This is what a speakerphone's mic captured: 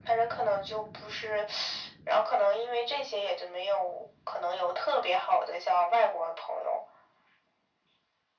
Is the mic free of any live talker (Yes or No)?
Yes